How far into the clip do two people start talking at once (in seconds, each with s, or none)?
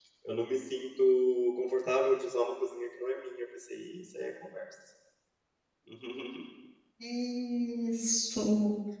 none